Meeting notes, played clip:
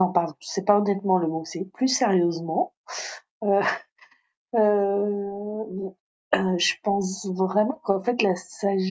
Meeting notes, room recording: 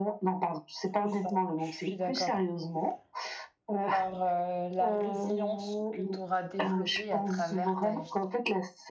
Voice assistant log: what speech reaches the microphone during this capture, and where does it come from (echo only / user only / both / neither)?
both